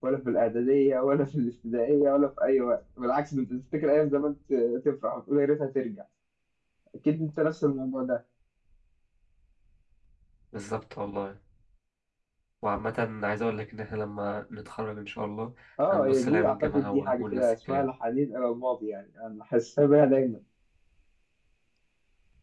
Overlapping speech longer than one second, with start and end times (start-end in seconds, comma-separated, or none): 15.9-17.9